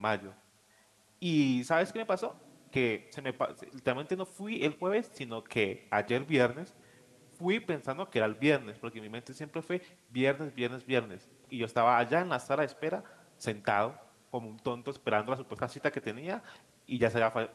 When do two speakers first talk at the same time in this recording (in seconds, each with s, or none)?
none